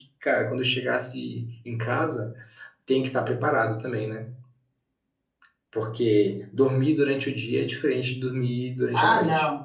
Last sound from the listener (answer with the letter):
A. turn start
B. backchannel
A